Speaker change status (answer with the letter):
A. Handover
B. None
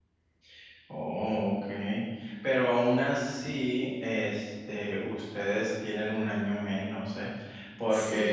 B